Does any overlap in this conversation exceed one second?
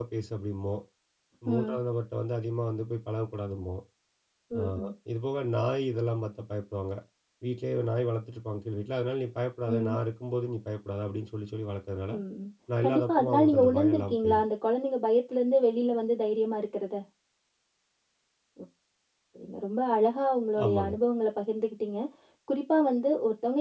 Yes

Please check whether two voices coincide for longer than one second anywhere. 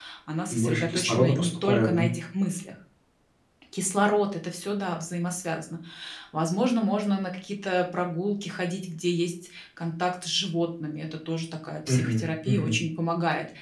Yes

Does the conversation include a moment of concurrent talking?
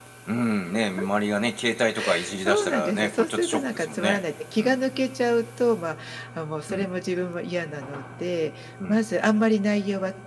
Yes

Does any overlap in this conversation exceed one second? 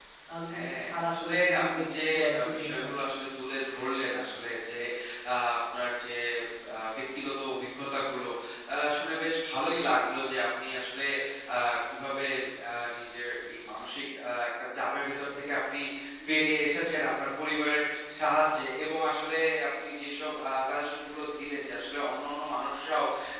Yes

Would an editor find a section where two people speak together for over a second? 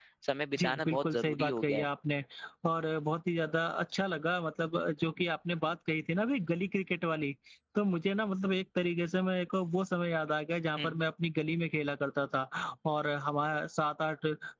Yes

